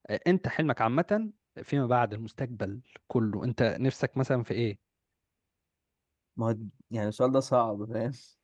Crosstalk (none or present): none